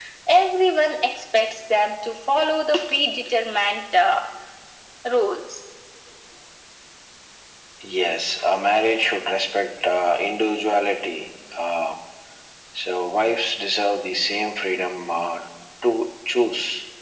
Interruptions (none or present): none